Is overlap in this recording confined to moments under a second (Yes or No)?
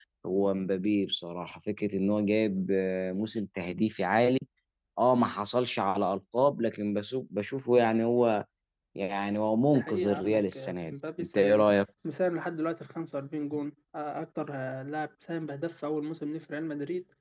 No